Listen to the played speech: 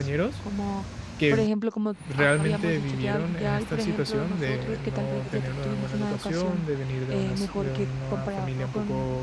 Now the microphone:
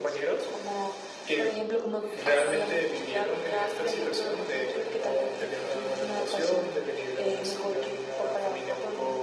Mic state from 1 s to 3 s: echo only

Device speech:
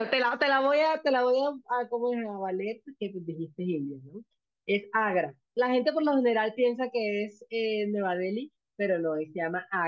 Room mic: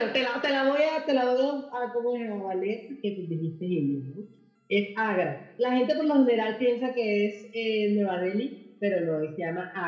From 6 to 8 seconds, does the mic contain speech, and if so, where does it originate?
echo only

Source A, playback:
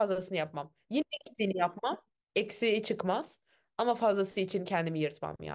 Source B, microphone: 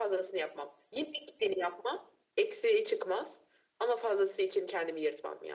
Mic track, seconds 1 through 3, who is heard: echo only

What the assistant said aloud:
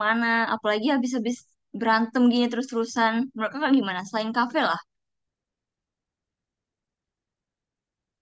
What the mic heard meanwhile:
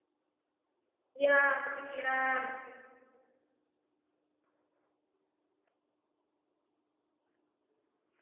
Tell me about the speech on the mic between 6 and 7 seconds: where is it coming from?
neither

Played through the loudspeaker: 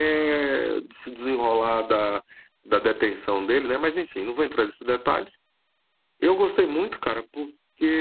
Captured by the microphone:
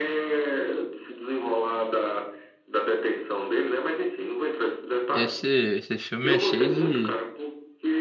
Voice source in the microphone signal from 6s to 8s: both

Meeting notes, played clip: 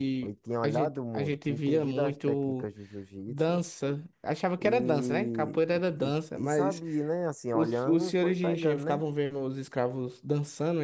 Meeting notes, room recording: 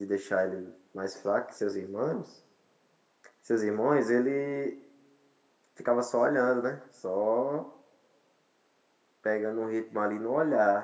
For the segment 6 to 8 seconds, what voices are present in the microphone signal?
user only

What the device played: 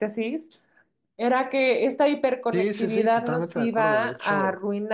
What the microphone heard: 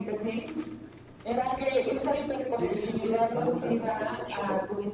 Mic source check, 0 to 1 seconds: echo only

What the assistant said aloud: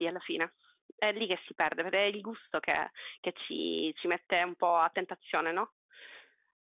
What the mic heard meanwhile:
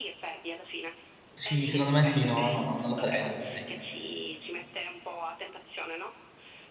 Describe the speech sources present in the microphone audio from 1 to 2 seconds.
both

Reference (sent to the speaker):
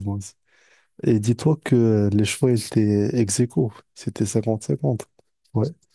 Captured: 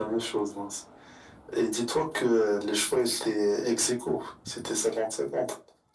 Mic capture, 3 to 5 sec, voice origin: echo only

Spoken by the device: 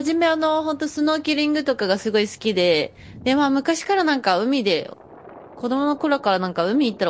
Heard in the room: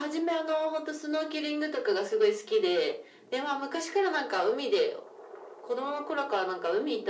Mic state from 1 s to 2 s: echo only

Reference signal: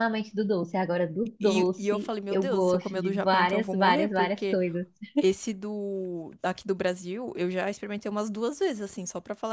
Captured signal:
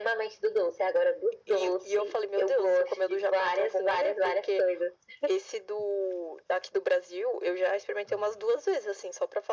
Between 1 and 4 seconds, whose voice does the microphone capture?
echo only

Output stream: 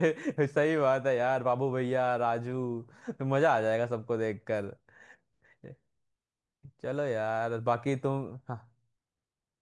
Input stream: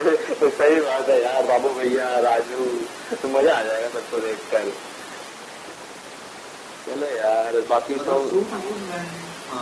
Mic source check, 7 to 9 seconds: both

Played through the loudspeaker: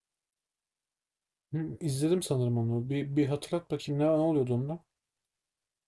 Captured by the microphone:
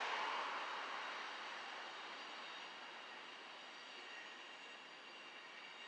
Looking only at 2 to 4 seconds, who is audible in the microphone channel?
neither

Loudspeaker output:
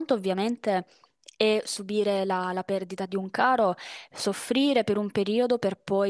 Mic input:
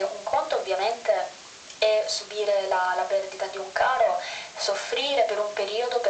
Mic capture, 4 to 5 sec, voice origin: echo only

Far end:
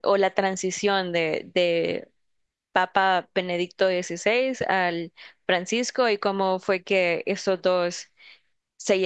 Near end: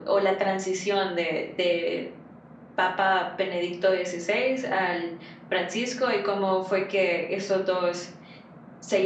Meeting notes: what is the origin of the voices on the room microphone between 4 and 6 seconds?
echo only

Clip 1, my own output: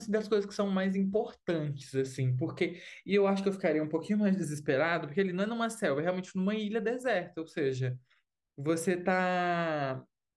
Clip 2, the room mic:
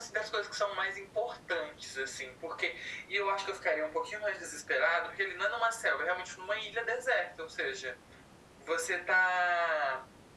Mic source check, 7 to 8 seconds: echo only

